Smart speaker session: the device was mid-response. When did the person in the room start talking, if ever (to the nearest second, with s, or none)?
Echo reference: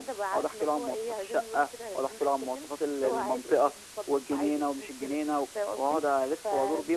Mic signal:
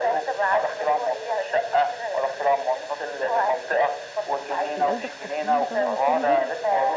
5 s